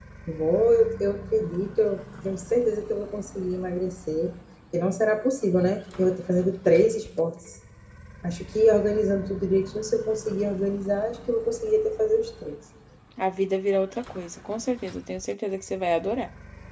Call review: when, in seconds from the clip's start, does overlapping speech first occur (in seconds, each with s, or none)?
none